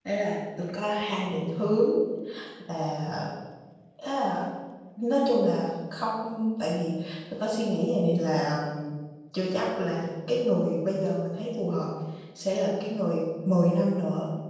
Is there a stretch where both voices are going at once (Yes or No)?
No